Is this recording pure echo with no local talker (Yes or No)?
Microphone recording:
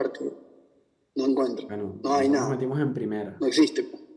No